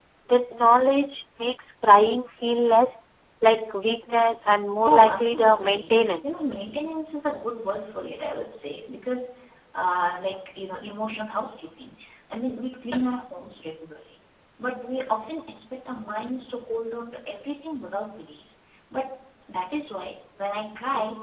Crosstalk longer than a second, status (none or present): present